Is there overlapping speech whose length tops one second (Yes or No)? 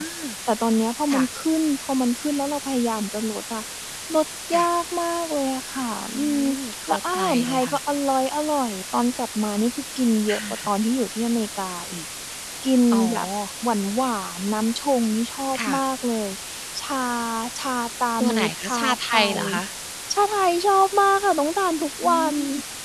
Yes